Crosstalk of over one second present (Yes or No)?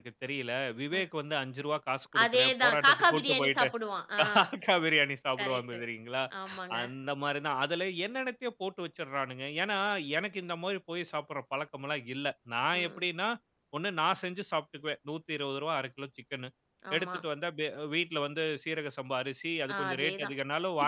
Yes